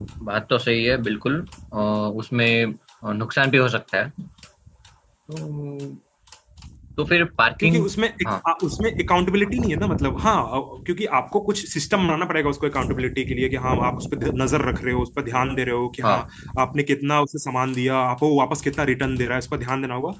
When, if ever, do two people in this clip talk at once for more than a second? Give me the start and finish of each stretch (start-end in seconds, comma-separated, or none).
none